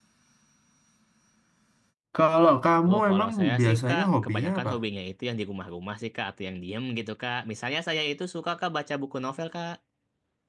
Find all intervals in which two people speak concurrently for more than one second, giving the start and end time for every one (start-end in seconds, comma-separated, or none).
2.9-4.7